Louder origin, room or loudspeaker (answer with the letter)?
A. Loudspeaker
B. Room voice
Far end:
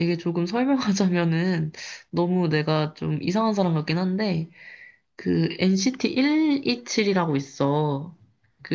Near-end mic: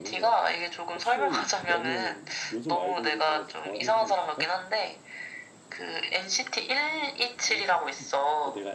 A